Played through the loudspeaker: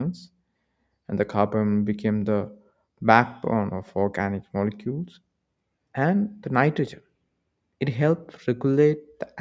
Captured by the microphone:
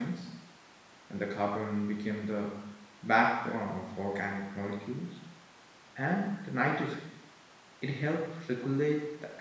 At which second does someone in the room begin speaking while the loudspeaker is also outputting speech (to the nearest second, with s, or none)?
none